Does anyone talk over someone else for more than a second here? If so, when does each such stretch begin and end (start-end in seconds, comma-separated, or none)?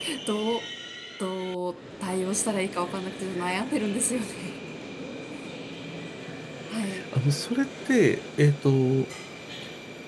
none